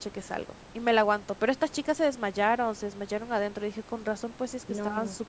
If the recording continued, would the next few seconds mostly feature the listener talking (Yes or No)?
Yes